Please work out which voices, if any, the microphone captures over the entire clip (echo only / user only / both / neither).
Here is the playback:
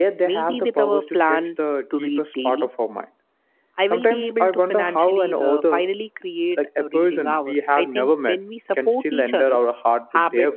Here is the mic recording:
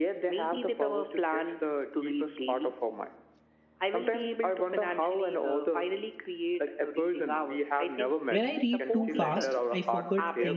both